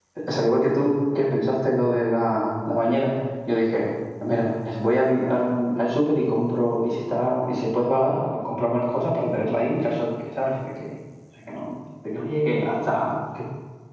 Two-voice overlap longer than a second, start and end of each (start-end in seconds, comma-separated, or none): none